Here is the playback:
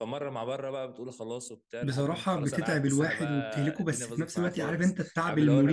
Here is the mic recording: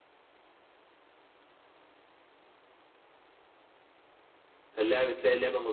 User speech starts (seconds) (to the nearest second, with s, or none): 5 s